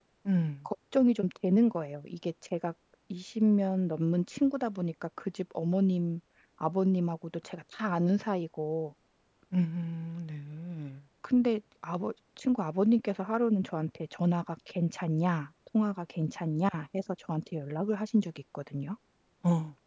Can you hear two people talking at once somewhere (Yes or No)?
No